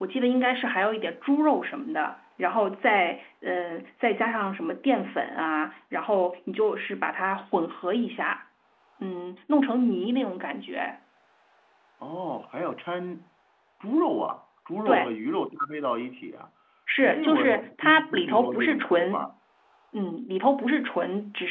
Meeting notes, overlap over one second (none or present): present